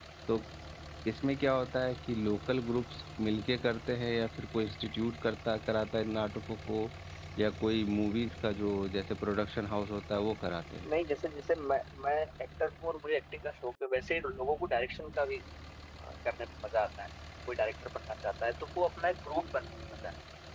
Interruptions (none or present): none